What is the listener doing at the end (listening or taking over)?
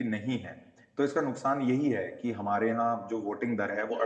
listening